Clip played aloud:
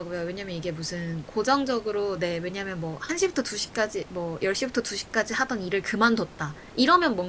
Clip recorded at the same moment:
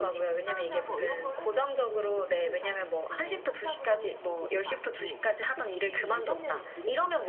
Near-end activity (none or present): present